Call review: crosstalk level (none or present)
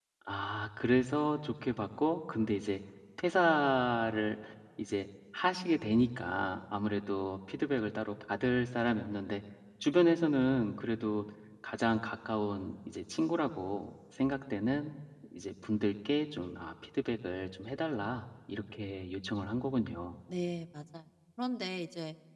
none